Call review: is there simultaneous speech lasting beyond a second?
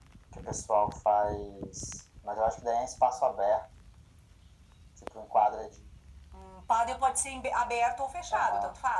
No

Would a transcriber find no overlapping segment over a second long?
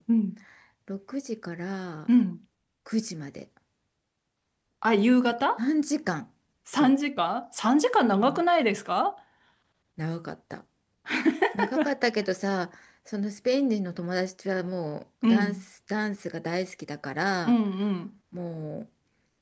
Yes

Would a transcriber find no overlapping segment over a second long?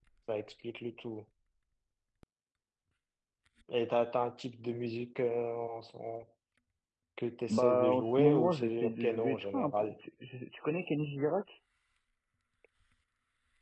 No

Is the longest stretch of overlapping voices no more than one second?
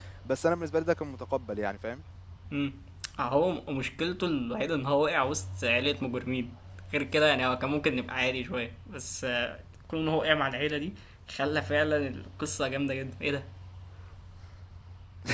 Yes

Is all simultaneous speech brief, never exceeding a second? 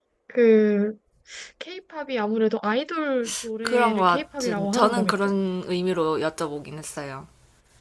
No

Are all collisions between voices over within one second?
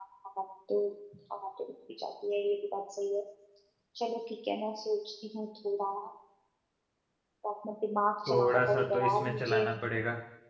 No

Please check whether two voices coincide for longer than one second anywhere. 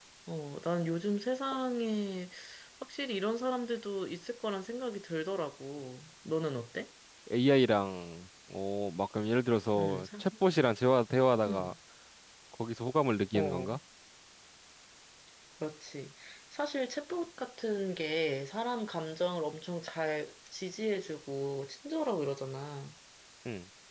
No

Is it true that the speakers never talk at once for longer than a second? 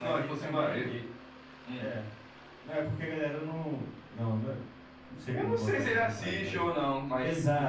No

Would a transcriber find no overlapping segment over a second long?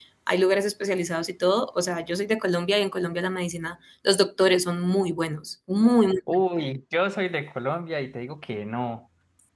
Yes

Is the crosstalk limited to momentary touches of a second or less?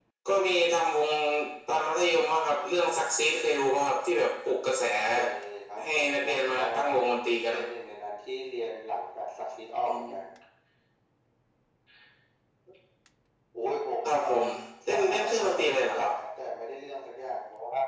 No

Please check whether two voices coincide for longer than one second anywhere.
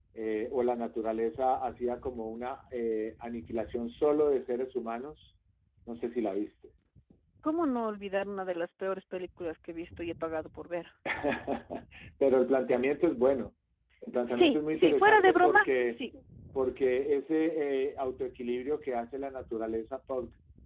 Yes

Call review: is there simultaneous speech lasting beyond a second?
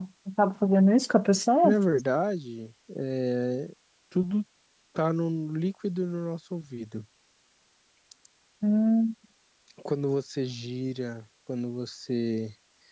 No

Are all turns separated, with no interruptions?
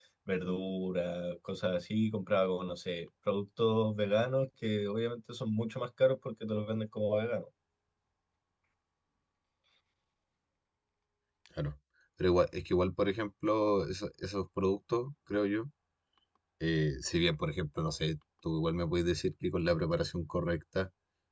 Yes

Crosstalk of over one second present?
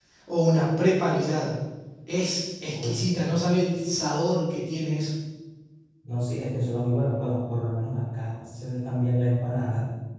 No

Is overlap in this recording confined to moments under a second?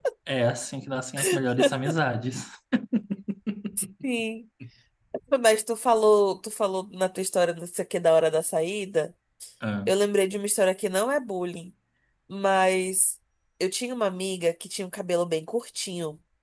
Yes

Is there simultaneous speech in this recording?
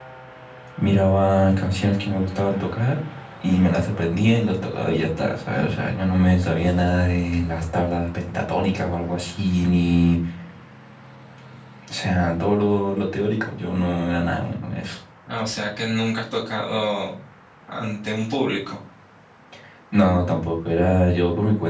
No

